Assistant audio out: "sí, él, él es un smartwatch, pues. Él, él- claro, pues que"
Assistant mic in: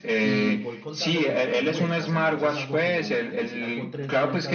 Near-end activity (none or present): present